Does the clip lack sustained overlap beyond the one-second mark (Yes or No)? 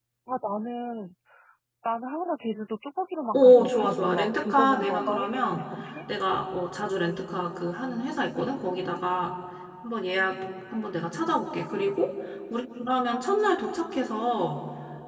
No